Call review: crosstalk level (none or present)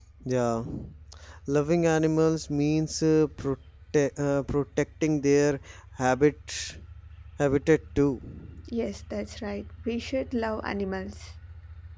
none